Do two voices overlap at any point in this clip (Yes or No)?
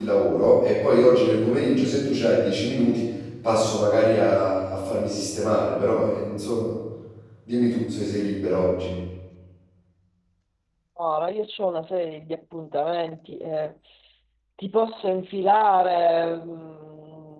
No